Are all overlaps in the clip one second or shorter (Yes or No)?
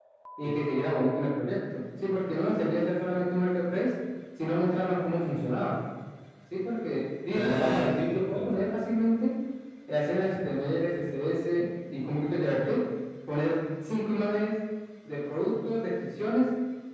No